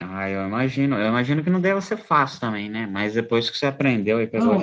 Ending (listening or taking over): taking over